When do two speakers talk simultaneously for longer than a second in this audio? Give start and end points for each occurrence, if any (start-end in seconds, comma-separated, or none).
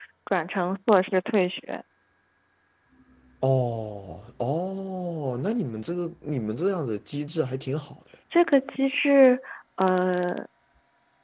none